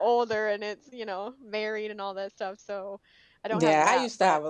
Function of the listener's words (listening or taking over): taking over